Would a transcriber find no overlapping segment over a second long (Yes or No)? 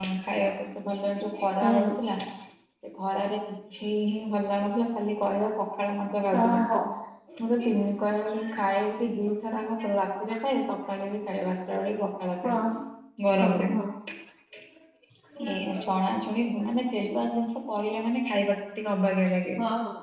Yes